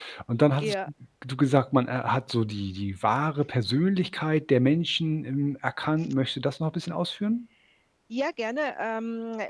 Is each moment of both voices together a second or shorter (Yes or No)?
Yes